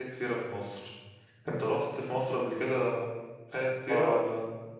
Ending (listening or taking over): taking over